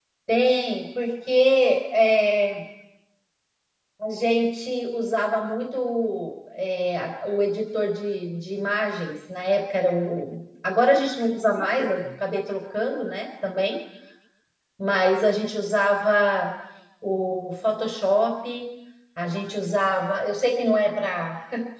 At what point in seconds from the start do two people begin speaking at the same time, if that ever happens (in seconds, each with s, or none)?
none